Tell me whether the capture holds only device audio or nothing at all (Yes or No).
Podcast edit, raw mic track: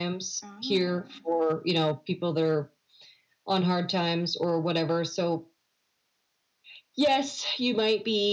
No